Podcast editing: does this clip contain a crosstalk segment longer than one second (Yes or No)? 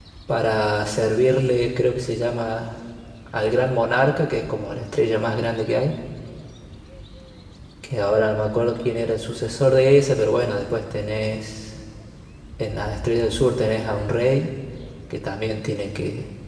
No